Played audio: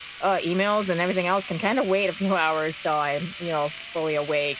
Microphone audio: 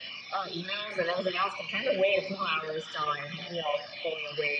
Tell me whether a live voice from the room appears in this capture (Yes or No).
No